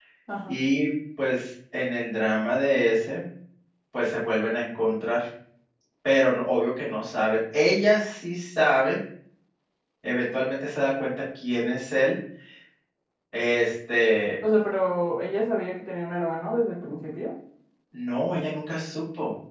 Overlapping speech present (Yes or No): No